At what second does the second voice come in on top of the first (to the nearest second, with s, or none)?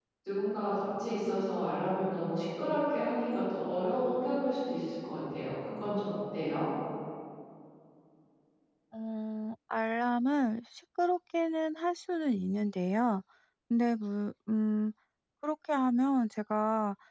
none